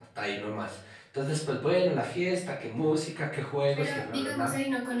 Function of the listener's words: taking over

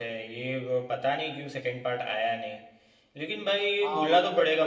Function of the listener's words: taking over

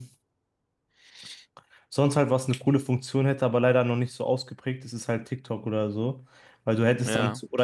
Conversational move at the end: listening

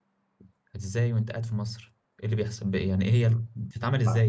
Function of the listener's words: taking over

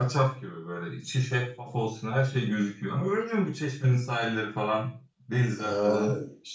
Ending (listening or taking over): taking over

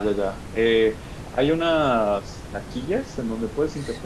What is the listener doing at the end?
listening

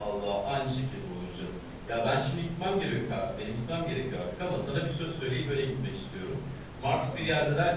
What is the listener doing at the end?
listening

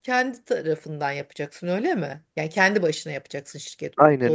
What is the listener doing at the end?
taking over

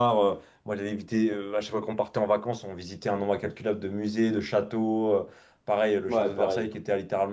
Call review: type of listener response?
listening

